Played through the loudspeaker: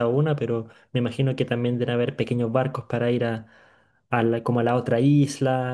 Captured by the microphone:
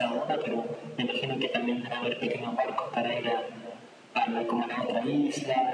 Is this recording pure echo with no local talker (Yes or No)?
Yes